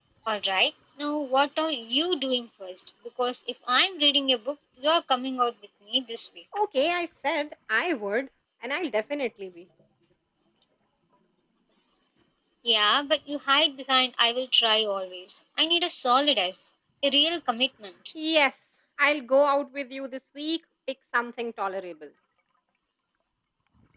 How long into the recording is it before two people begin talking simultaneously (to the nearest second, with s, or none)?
none